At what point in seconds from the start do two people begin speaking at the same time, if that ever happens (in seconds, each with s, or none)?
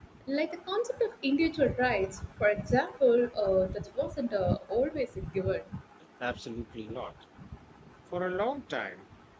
none